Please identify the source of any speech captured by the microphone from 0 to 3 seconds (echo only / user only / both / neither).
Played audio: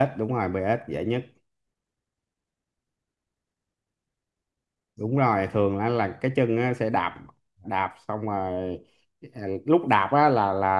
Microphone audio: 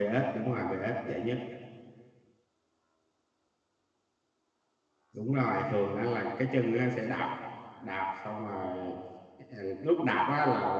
echo only